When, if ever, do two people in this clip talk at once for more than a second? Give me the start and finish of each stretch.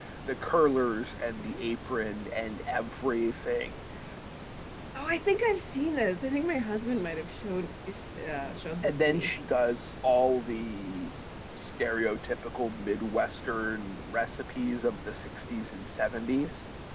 none

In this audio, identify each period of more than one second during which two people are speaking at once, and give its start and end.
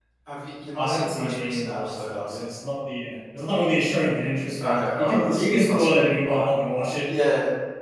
0.8-2.4, 4.6-6.5

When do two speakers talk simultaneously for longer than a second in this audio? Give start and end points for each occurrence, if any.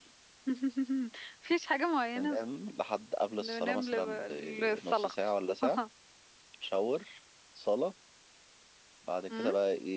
3.4-5.2

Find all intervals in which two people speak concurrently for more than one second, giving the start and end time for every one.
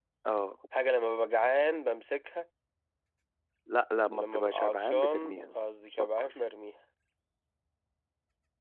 4.1-5.5

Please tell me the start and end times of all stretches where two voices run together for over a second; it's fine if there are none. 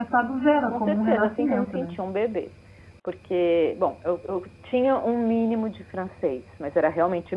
0.6-1.9

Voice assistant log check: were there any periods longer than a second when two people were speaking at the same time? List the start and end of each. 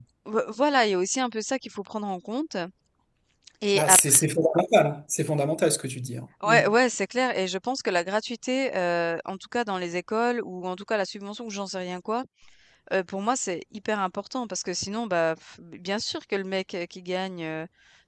none

